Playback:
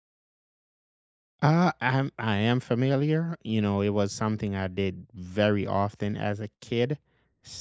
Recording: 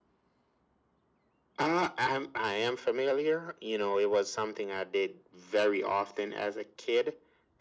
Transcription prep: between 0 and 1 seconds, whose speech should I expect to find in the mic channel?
neither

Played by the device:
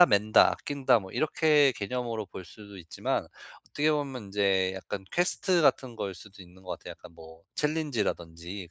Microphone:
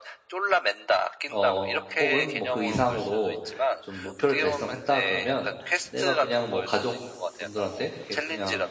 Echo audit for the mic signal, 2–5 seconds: both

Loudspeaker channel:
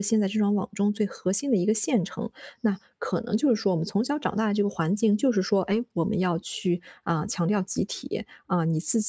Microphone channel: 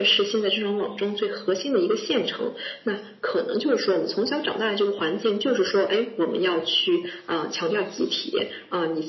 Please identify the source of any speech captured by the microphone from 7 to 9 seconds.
echo only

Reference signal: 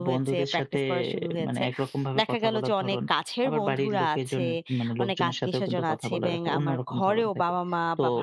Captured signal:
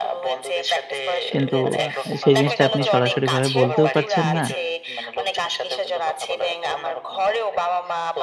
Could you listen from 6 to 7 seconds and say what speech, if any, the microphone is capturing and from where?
echo only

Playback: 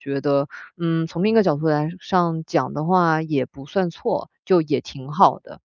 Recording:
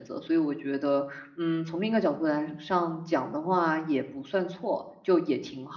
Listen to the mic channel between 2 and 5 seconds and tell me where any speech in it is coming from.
echo only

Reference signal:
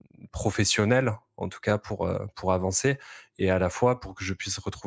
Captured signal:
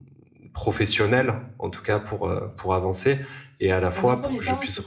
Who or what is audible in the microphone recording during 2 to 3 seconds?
echo only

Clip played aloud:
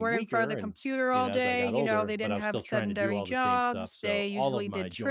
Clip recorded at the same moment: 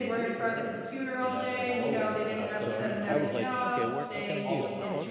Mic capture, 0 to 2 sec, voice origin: echo only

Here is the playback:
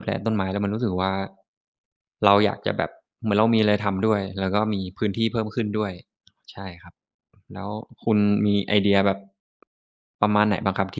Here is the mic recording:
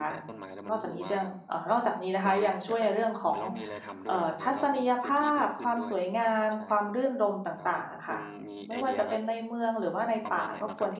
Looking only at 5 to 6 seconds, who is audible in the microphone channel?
both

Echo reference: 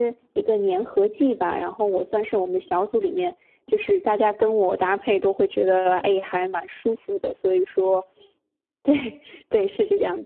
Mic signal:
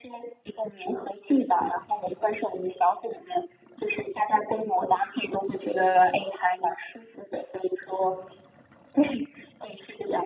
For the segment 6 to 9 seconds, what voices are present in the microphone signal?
echo only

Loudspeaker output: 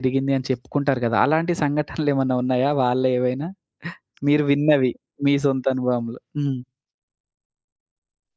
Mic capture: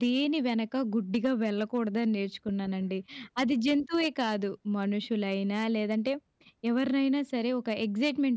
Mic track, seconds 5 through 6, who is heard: user only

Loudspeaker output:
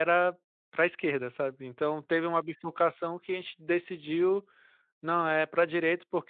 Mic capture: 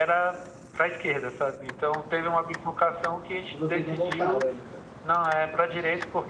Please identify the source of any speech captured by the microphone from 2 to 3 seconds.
echo only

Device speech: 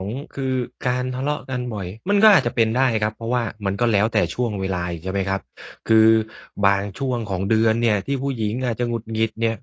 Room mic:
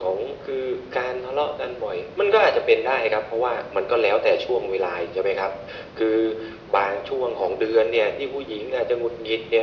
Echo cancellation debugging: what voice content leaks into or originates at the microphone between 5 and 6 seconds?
echo only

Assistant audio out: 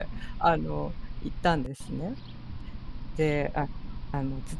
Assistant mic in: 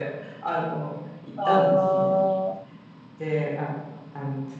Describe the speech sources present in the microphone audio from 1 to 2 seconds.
both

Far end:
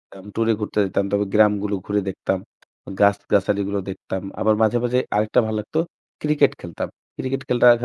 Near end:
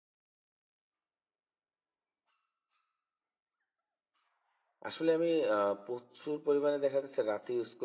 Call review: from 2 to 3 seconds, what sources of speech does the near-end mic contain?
neither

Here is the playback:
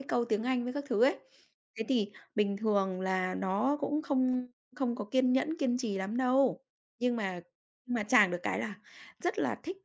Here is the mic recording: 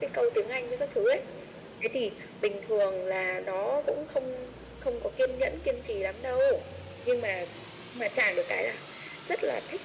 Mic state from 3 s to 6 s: echo only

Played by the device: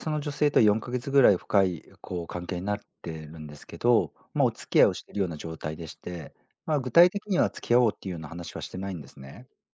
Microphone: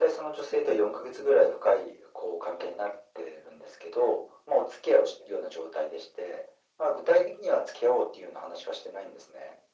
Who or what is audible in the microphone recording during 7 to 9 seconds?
echo only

